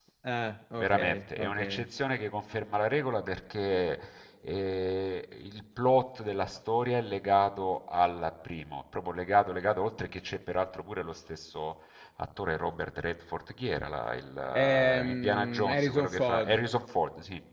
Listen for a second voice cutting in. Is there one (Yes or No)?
Yes